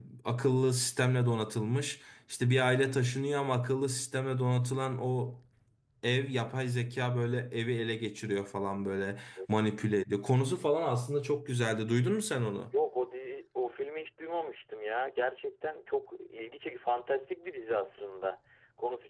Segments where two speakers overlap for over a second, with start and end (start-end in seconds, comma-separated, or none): none